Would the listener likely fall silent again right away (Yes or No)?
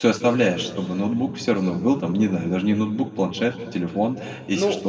No